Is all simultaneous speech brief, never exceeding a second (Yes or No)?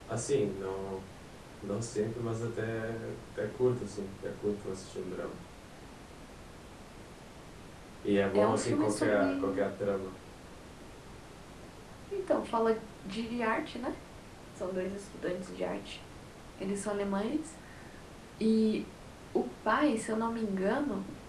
No